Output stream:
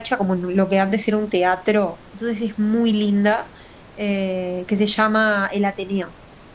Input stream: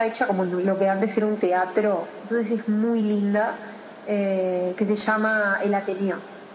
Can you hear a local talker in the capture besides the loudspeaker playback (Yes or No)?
No